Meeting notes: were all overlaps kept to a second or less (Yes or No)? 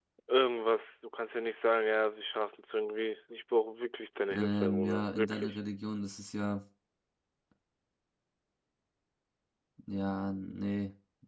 No